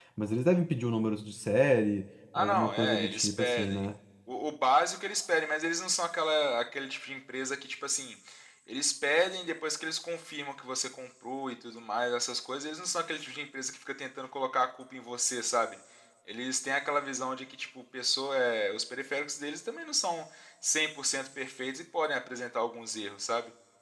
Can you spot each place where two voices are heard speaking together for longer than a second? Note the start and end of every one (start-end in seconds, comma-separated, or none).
2.4-3.8